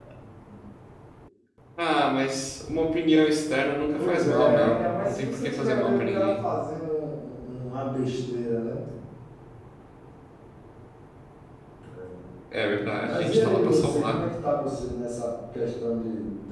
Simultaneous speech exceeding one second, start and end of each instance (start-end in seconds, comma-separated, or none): 3.9-6.4, 13.0-14.2